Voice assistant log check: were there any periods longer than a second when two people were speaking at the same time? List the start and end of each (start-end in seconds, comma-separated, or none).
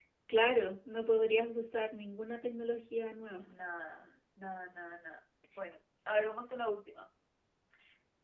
none